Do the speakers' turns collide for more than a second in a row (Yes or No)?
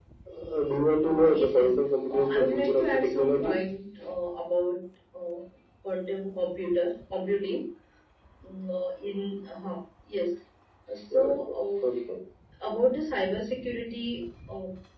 Yes